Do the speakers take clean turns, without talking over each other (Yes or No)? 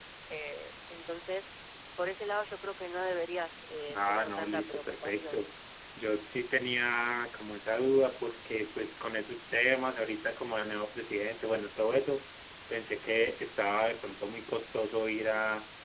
No